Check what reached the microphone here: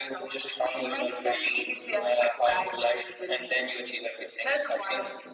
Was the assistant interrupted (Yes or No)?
No